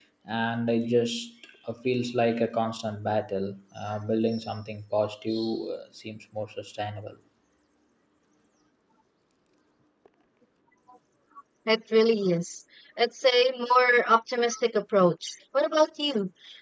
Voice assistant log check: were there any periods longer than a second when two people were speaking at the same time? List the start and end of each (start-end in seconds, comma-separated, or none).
none